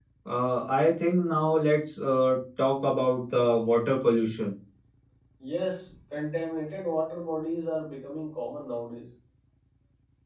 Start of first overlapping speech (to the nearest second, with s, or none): none